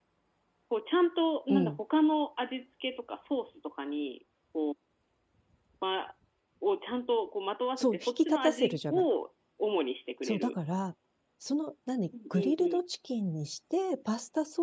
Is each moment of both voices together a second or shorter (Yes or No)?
No